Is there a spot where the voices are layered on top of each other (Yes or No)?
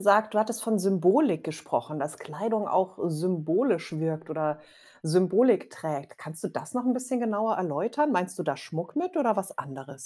No